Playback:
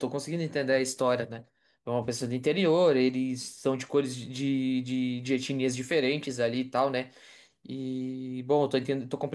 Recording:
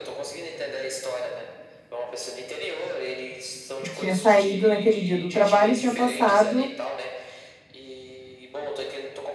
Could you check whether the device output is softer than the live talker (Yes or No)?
Yes